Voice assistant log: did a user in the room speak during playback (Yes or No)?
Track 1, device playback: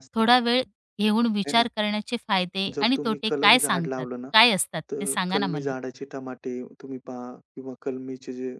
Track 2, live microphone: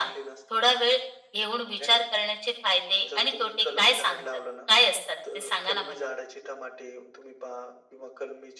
No